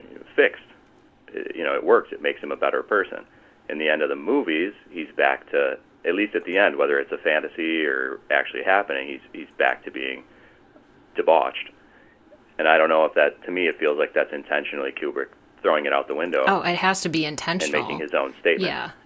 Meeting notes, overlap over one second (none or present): none